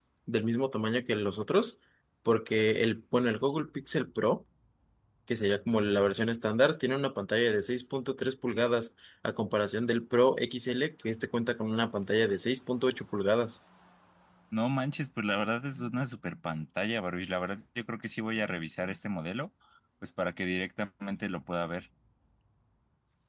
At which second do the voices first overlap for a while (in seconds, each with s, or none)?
none